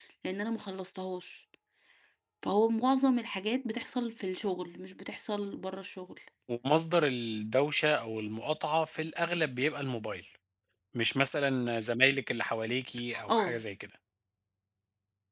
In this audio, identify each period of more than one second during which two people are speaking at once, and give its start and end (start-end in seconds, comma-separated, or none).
none